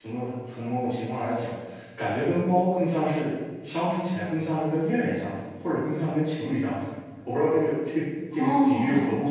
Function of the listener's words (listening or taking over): taking over